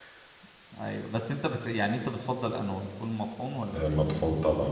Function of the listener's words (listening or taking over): taking over